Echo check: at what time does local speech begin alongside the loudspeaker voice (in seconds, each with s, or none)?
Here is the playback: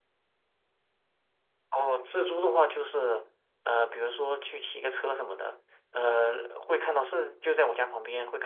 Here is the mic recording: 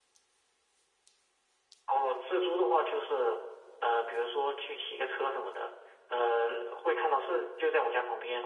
none